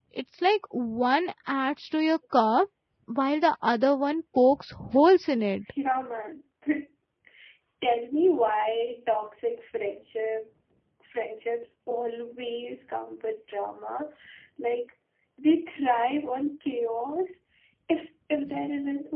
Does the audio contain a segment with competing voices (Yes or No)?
No